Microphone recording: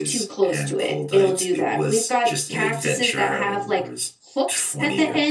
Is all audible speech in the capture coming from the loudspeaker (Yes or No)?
Yes